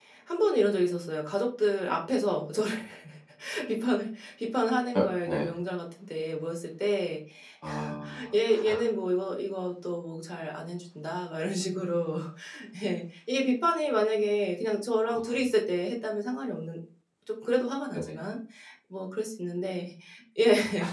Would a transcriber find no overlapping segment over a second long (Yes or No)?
Yes